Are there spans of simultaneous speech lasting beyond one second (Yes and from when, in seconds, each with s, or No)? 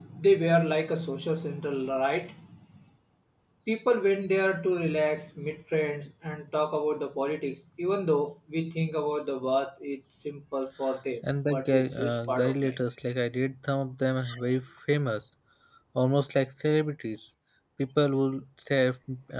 Yes, from 11.5 s